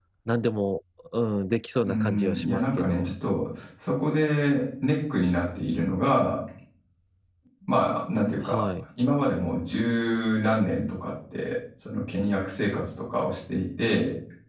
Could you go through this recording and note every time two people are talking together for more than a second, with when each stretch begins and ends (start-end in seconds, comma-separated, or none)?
1.8-3.1